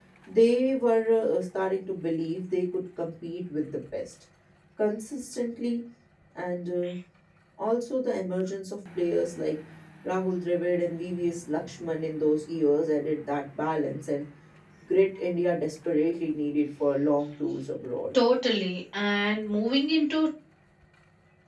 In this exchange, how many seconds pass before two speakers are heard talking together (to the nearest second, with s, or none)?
none